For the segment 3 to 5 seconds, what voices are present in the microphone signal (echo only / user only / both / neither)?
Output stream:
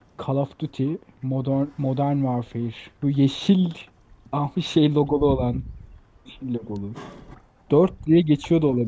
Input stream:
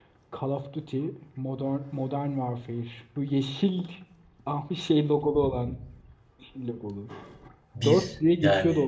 echo only